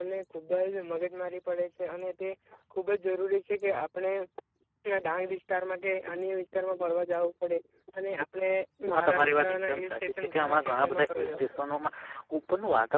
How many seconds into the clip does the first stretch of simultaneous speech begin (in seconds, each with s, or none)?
9.0 s